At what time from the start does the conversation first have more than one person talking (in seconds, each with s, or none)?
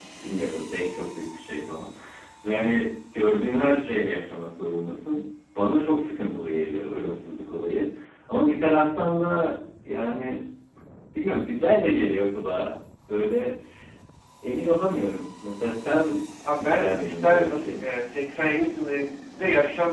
16.6 s